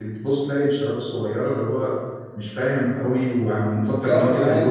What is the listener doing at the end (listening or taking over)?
taking over